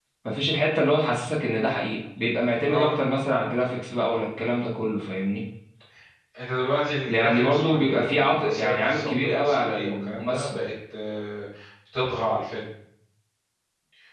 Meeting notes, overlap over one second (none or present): present